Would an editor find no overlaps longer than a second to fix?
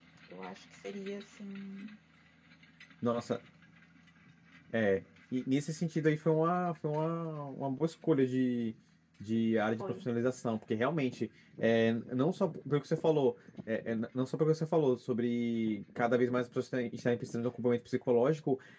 Yes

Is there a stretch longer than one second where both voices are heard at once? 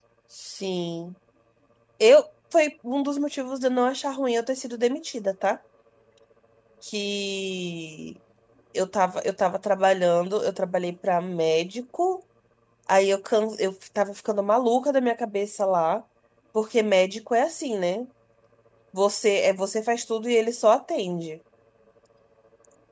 No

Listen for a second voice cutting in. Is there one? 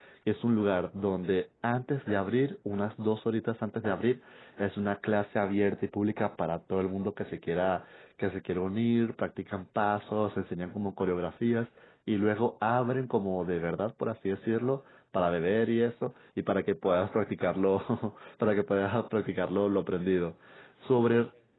No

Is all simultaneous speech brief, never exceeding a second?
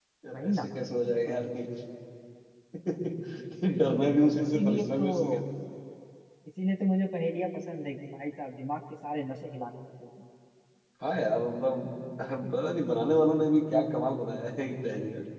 No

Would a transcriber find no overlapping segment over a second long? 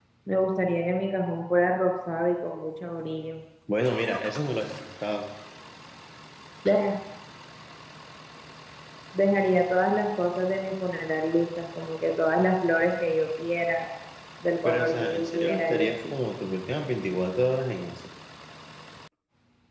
No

